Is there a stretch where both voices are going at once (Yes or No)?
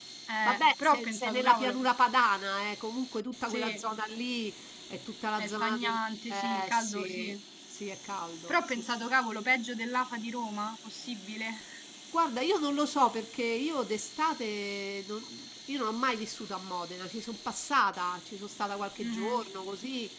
Yes